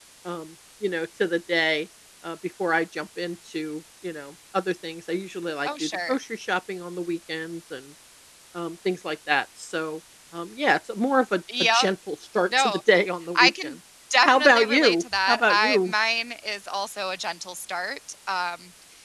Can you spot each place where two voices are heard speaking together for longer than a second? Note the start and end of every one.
14.2-15.9

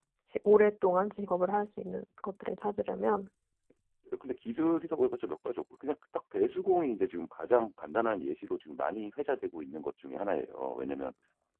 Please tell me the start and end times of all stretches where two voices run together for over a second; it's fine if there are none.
none

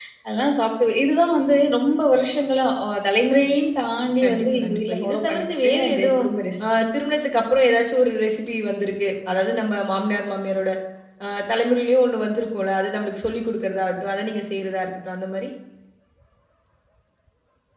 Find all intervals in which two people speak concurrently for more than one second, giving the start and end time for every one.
4.2-6.3

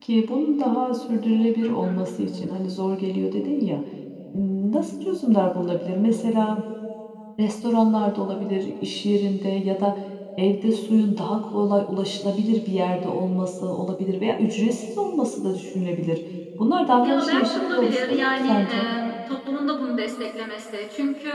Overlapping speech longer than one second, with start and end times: 17.0-18.9

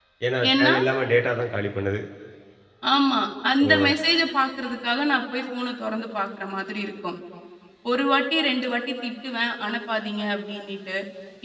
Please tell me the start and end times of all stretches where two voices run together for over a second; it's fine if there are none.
none

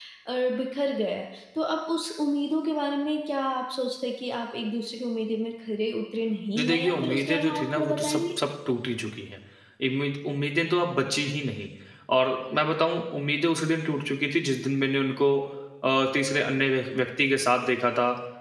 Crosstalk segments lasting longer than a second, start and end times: 6.5-8.3

